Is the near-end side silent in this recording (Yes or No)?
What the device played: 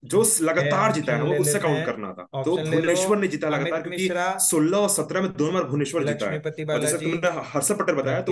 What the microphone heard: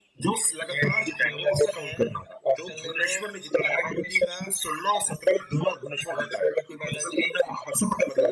Yes